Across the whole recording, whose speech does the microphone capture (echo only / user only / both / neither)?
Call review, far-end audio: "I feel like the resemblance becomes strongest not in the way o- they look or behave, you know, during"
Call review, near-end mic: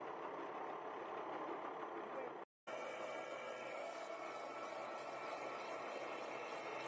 neither